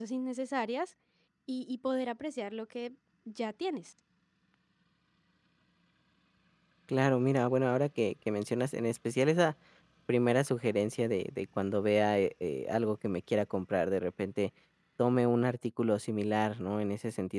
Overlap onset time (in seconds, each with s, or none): none